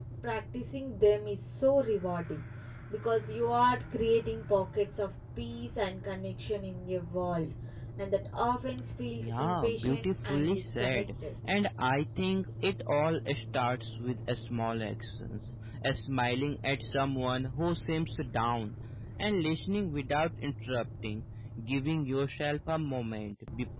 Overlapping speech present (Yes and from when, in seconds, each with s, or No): Yes, from 9.2 s